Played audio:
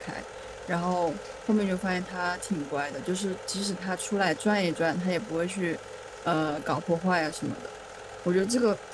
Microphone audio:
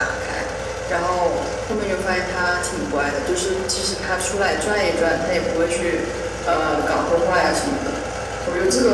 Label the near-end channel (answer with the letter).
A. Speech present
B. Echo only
B